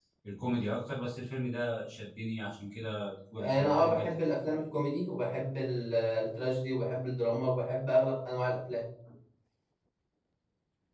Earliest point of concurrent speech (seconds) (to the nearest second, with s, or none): 3 s